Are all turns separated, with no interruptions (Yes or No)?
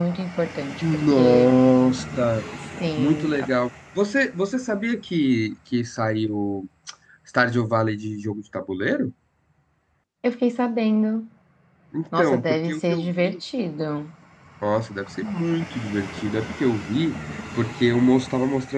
No